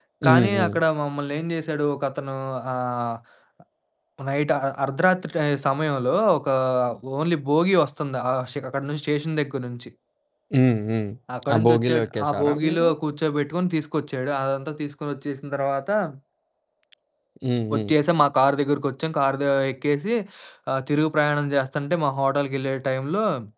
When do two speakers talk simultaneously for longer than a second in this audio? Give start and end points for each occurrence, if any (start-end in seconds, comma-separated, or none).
11.5-12.9